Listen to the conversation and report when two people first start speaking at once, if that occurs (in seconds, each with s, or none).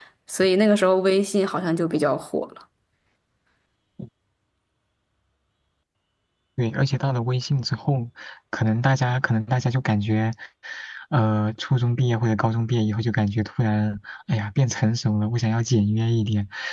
none